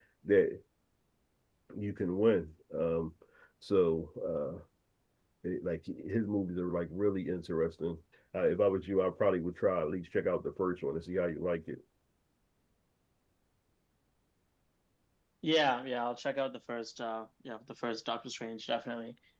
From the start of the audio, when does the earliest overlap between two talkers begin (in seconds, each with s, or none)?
none